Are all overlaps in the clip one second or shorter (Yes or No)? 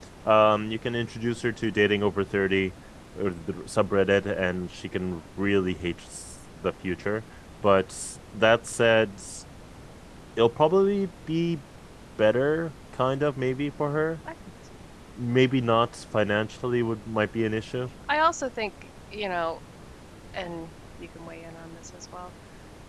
Yes